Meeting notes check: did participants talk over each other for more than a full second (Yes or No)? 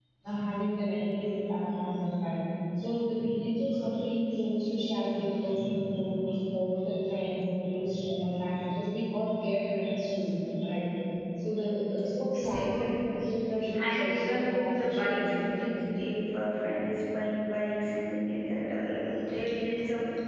Yes